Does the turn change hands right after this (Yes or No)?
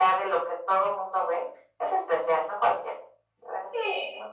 Yes